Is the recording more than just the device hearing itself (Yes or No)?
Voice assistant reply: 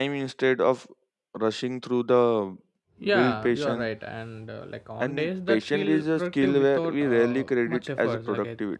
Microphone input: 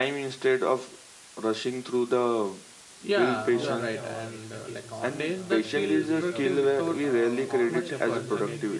Yes